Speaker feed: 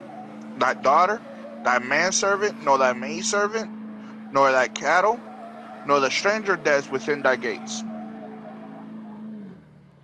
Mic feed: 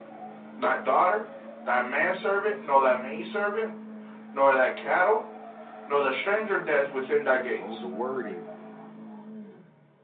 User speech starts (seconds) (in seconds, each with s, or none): 7.6 s